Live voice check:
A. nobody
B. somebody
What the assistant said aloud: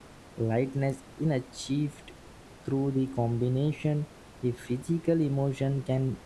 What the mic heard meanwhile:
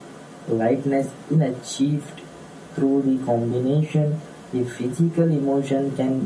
A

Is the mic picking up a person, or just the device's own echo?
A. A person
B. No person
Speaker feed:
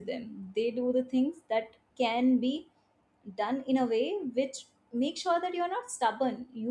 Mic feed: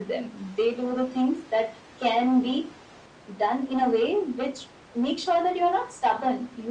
B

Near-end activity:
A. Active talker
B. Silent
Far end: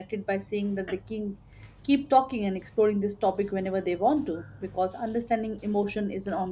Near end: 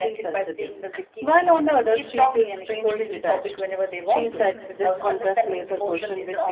A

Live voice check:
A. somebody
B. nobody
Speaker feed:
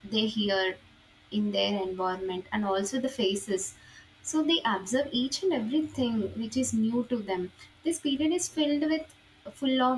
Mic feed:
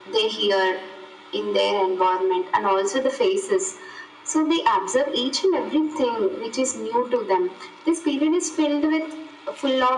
B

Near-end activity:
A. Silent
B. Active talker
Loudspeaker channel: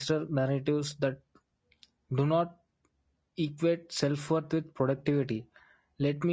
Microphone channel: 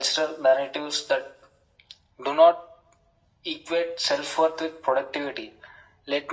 A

